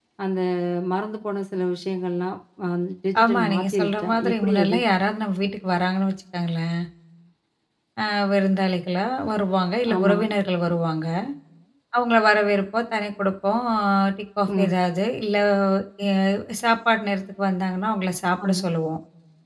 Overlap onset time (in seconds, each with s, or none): 3.2 s